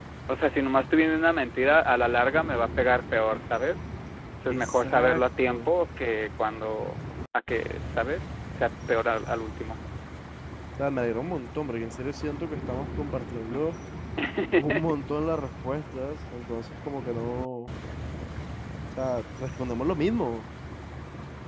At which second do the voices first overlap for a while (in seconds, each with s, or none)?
4.5 s